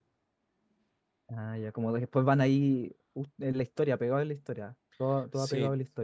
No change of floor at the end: No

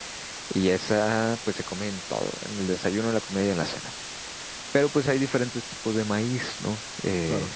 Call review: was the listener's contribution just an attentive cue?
Yes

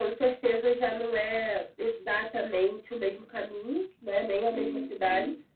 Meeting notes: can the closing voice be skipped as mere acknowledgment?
Yes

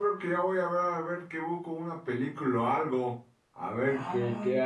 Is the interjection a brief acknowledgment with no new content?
No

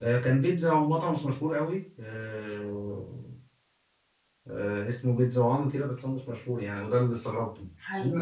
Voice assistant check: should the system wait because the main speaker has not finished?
Yes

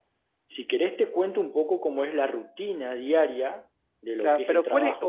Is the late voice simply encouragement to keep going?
No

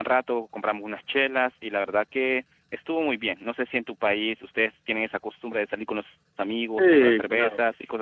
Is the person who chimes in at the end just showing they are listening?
No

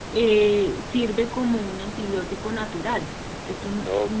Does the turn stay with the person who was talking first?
No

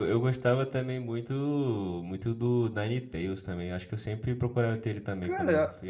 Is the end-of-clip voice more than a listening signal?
Yes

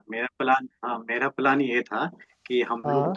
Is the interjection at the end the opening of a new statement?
No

